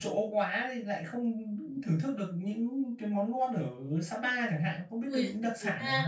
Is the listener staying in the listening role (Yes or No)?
No